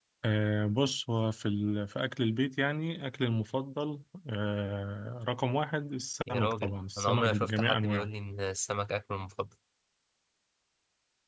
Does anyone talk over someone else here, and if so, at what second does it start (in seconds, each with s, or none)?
6.3 s